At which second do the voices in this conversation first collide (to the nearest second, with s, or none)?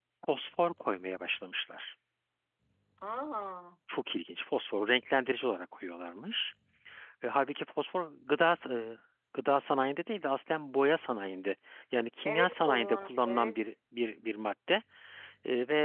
12 s